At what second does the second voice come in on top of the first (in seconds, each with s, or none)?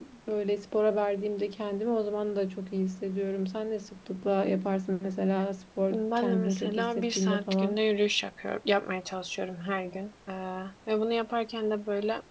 5.9 s